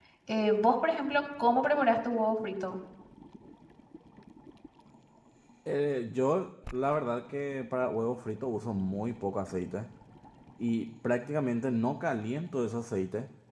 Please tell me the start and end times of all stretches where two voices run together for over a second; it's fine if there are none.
none

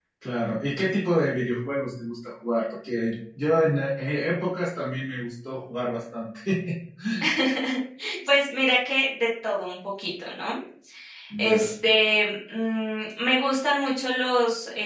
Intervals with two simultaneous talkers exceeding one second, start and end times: none

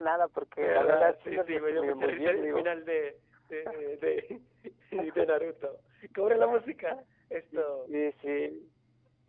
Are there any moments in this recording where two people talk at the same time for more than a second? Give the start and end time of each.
0.6-2.6

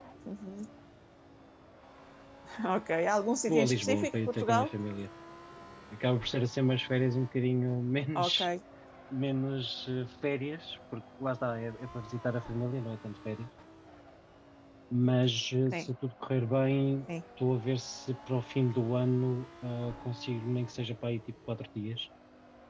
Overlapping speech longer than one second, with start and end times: 3.5-4.7

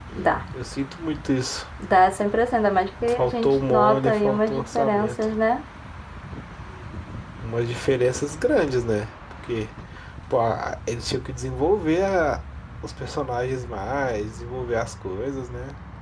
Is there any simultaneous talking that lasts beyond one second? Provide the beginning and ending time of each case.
3.1-5.3

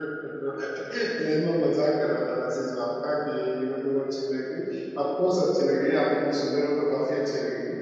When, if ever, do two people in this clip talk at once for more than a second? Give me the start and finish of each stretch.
none

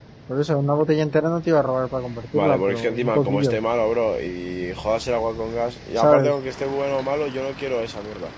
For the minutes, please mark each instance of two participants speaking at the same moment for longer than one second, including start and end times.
2.3-3.6

